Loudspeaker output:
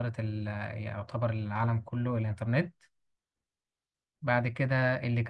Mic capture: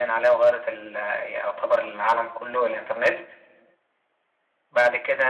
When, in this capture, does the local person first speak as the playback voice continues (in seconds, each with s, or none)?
none